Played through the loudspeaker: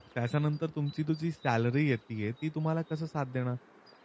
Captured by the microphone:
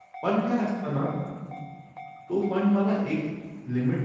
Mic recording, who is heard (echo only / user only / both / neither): user only